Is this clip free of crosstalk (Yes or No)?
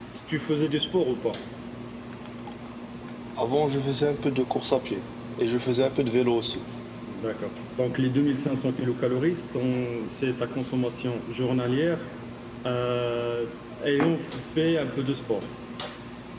Yes